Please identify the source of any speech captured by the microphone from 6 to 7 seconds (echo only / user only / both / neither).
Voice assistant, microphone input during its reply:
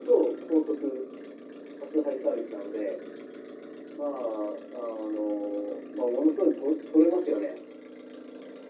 echo only